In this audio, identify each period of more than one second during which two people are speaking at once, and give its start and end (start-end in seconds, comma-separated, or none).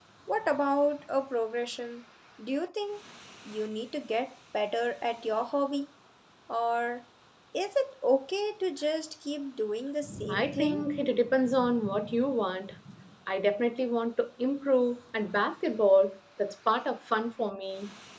none